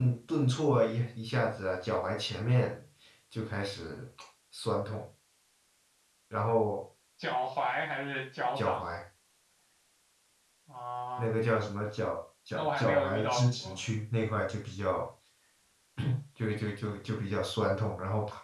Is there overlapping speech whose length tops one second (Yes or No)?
Yes